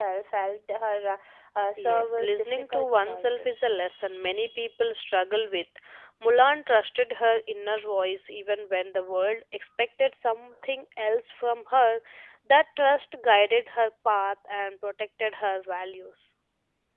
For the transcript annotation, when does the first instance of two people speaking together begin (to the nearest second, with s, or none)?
2 s